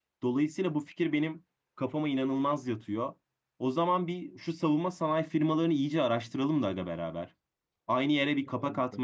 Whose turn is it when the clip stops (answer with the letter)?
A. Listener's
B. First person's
B